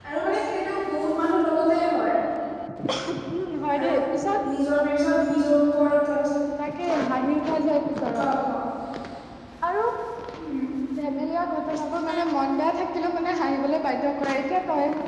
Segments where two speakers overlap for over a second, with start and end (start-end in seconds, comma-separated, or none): none